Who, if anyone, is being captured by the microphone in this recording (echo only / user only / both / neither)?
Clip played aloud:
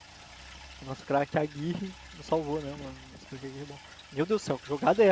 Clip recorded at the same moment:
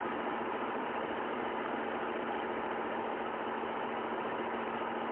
neither